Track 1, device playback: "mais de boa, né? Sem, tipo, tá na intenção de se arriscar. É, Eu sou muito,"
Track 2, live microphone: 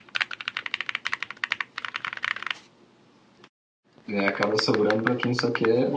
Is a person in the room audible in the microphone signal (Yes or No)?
Yes